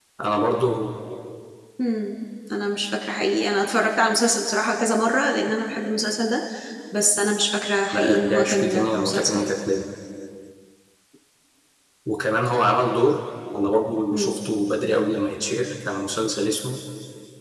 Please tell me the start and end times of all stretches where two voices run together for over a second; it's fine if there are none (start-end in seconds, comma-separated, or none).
7.9-9.5